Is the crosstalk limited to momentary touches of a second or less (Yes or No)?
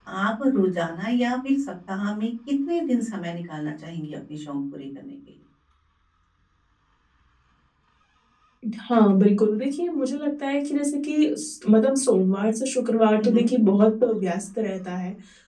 Yes